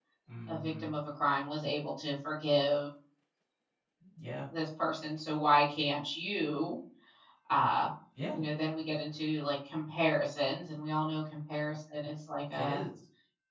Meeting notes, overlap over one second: none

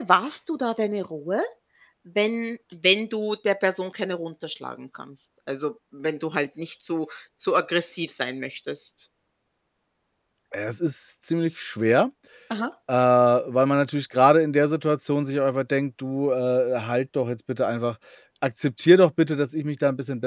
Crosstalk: none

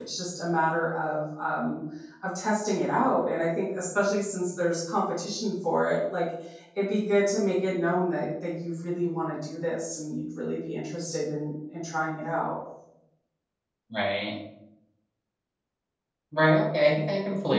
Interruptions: none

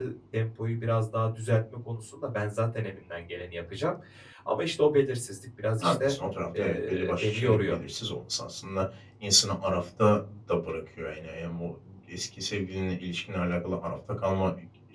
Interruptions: present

